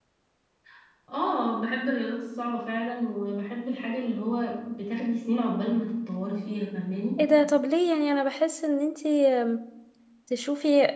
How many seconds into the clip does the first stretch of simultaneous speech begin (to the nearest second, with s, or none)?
none